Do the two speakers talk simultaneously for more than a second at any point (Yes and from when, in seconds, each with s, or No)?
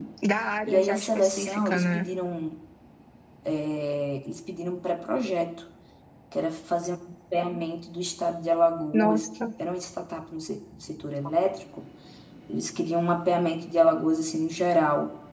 Yes, from 0.7 s